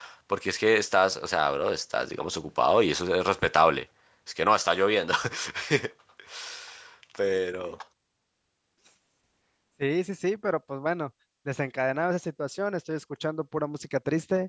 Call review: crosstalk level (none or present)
none